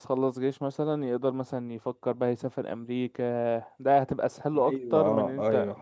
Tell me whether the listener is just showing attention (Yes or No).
No